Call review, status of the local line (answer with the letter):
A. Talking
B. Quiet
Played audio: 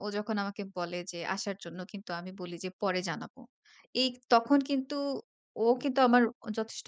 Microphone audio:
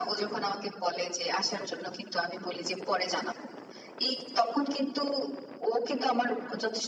B